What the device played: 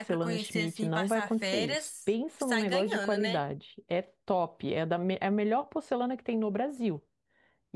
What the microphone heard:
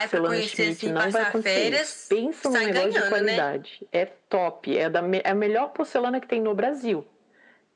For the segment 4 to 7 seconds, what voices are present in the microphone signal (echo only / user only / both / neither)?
echo only